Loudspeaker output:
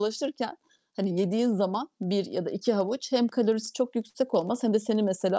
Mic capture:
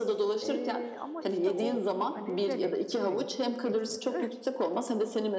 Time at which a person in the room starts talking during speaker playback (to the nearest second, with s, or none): 0 s